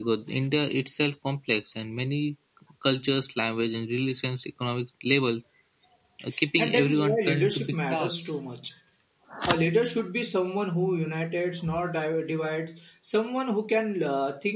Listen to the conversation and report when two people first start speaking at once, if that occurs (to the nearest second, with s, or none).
7 s